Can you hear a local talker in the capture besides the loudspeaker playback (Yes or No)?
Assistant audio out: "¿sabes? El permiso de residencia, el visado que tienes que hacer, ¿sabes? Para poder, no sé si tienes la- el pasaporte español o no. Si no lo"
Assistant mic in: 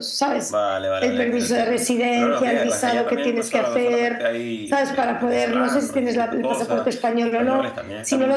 Yes